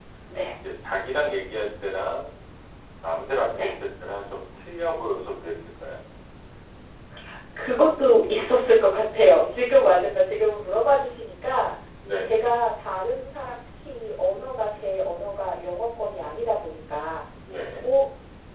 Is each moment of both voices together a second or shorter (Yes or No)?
Yes